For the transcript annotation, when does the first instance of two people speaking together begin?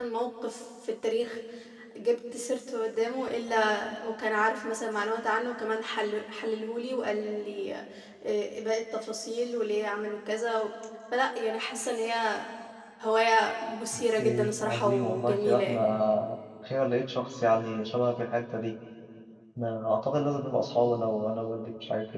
14.2 s

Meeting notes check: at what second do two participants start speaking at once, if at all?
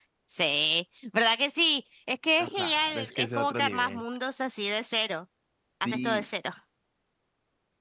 2.4 s

